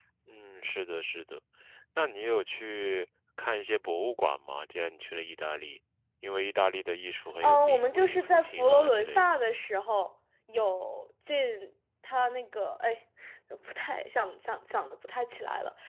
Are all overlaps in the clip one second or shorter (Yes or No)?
No